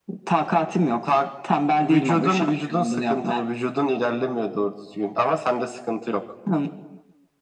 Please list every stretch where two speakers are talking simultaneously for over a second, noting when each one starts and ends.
1.8-3.4

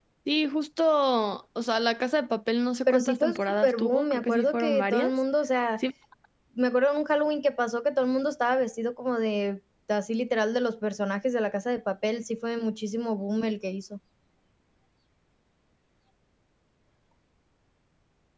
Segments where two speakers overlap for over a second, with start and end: 2.9-5.1

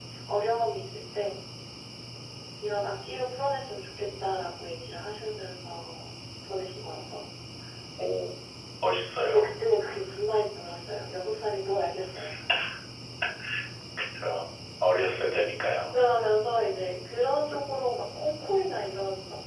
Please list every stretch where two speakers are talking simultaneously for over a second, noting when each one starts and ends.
none

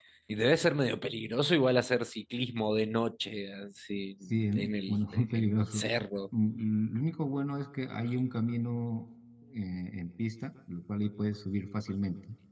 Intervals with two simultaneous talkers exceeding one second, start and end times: 4.6-5.8

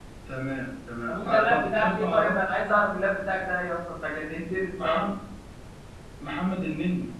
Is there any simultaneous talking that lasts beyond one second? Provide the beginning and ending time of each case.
1.1-2.4

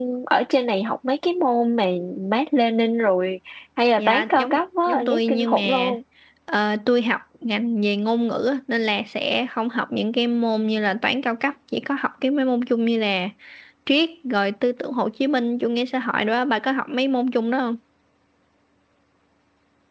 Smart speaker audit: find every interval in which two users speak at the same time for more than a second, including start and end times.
4.0-5.9

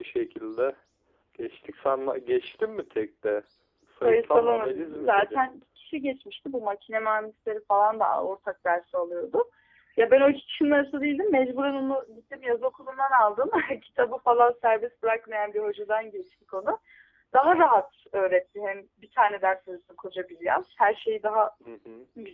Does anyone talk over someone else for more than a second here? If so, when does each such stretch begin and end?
4.0-5.5

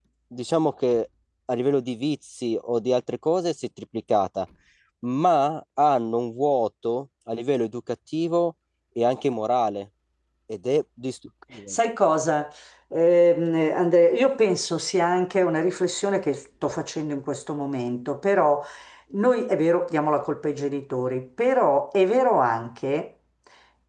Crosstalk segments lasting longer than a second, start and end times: none

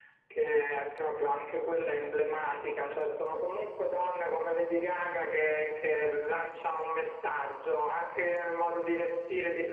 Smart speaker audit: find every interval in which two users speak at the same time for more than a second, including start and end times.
none

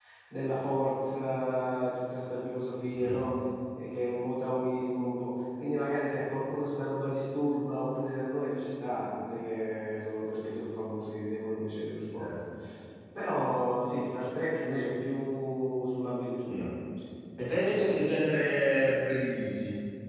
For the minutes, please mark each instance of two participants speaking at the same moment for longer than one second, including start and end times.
none

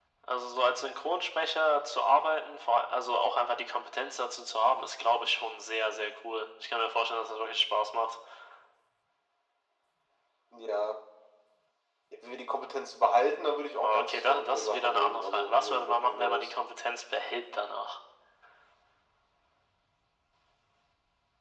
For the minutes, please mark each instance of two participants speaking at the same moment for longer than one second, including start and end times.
13.8-16.5

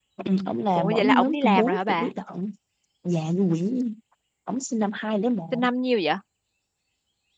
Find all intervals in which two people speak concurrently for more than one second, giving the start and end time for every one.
0.8-2.1

